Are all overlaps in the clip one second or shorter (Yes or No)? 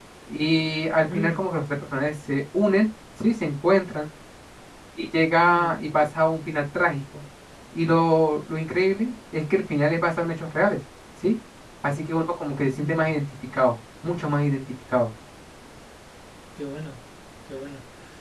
Yes